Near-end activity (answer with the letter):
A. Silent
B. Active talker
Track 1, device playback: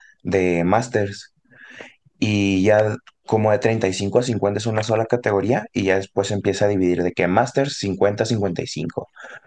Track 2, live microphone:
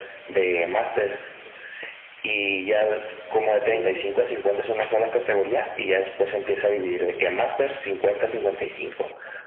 B